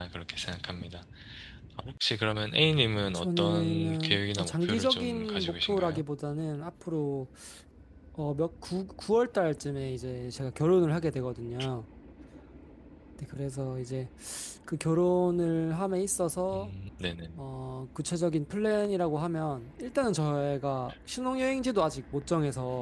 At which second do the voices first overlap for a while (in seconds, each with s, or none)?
3.1 s